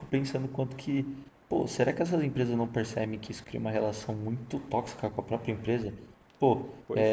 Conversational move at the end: listening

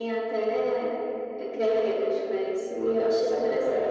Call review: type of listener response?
taking over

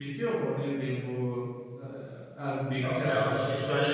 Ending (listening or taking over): taking over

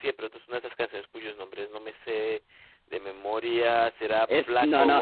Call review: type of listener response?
taking over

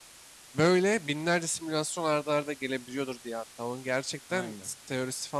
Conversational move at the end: listening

